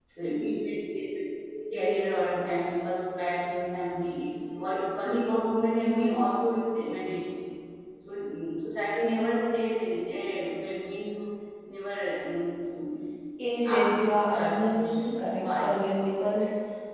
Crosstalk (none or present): present